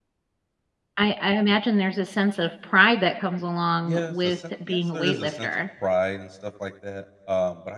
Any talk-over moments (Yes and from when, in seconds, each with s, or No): Yes, from 3.8 s